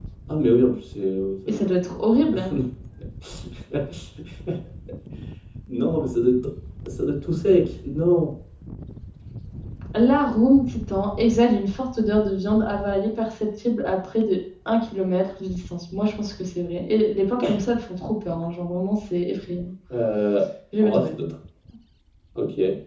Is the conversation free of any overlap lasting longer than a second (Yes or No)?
Yes